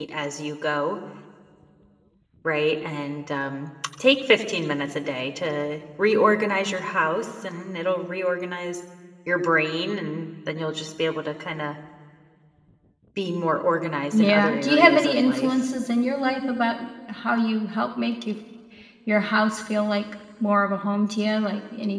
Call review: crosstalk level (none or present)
present